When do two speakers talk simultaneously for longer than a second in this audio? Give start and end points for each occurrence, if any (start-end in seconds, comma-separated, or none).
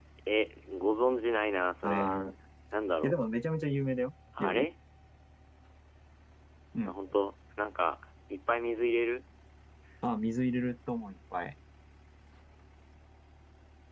none